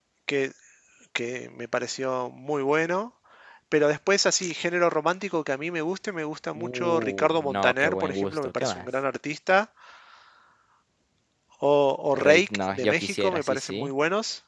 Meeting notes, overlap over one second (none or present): present